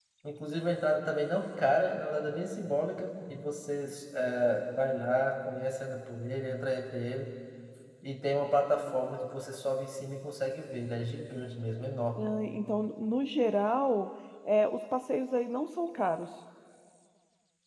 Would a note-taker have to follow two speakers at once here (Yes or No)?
No